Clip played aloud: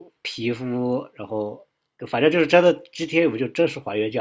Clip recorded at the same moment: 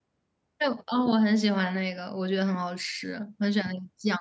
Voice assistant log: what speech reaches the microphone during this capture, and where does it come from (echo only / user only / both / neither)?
user only